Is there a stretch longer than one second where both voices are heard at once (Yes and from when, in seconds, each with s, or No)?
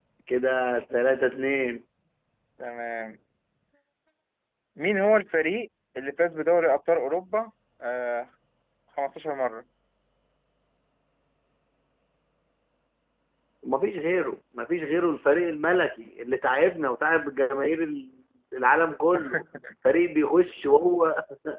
No